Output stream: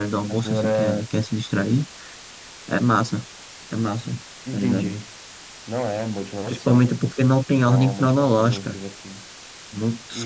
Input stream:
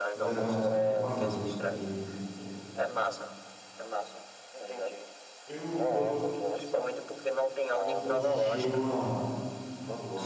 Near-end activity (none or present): present